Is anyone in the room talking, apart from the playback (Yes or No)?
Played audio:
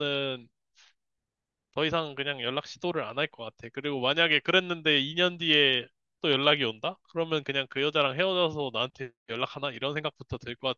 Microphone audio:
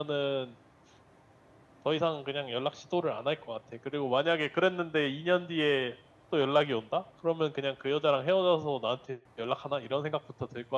No